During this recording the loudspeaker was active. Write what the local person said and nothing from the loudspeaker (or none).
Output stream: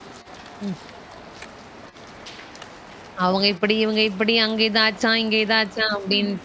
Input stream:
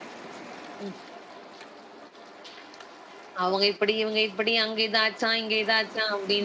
none